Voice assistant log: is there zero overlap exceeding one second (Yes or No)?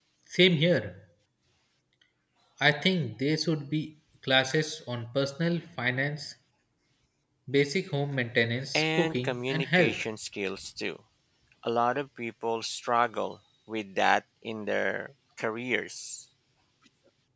No